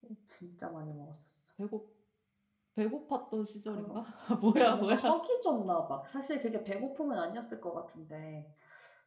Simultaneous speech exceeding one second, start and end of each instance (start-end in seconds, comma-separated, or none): none